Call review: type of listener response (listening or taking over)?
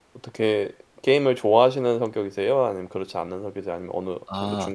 taking over